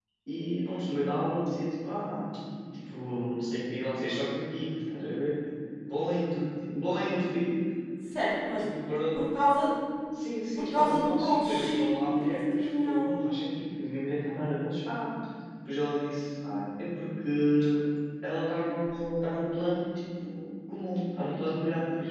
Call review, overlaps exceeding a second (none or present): present